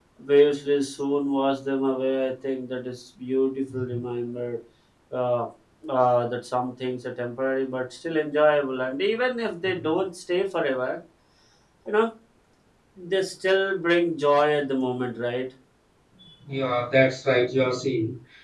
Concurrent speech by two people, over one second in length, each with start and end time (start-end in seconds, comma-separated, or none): none